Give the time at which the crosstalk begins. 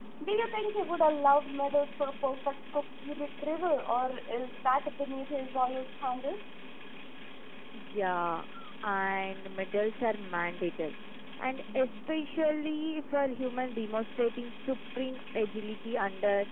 none

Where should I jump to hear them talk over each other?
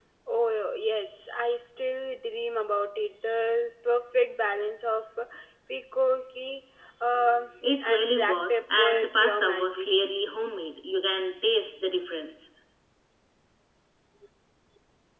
7.8 s

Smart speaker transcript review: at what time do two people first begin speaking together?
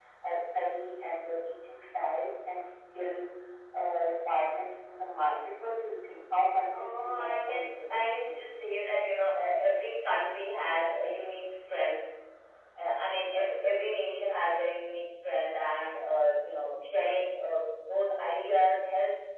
6.7 s

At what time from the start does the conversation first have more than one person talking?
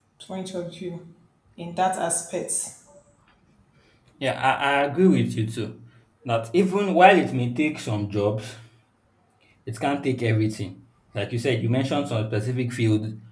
none

